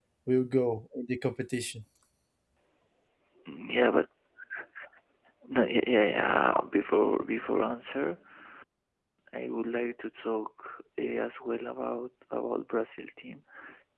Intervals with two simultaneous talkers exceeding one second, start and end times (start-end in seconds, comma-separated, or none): none